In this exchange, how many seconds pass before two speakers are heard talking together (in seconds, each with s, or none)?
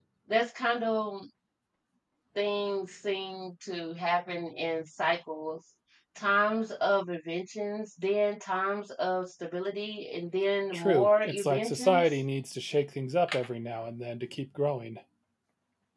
10.7 s